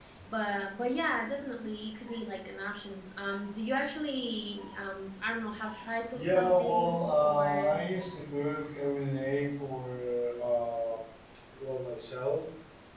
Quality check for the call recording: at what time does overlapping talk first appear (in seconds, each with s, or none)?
6.1 s